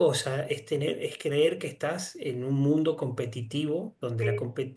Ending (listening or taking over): listening